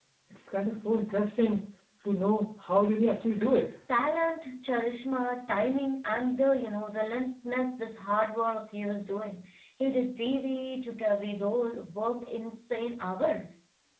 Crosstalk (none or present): none